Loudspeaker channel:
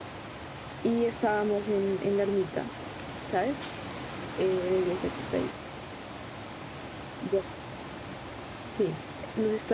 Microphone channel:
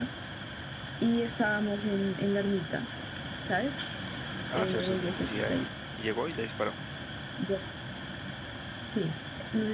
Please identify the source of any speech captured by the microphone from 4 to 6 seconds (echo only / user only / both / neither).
both